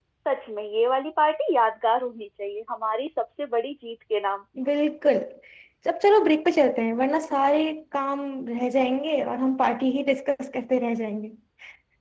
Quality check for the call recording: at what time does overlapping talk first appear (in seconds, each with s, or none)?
none